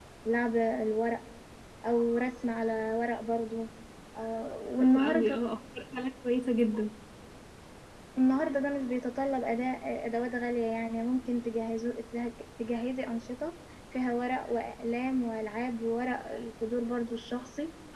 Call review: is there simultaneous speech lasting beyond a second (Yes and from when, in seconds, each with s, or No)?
No